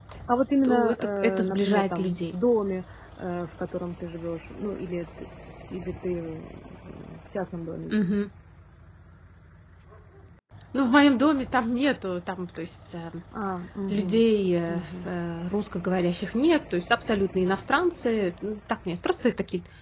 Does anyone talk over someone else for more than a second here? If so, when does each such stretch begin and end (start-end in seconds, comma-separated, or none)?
0.6-2.3